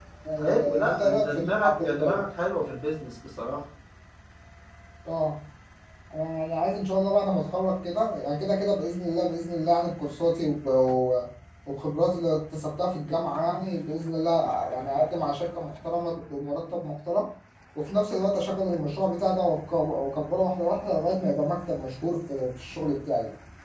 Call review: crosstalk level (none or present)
present